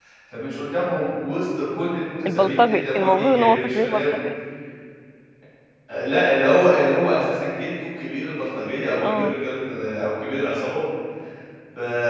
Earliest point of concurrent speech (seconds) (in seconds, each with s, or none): 2.3 s